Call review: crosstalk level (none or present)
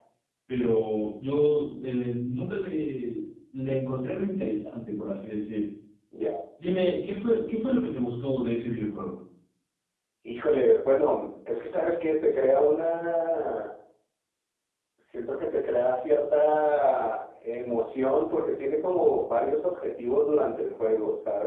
none